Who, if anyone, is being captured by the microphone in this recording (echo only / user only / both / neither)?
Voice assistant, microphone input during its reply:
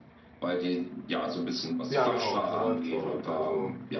both